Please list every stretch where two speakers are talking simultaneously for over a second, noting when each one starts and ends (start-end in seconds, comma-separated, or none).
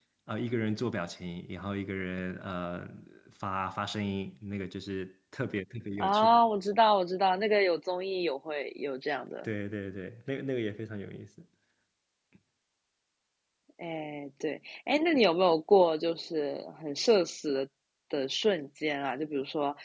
none